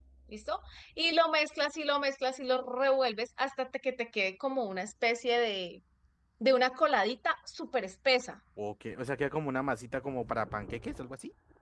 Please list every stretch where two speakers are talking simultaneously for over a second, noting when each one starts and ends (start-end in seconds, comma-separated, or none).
none